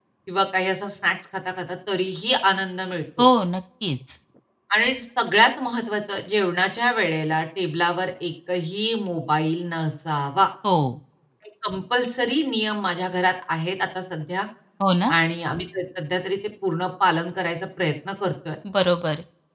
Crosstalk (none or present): none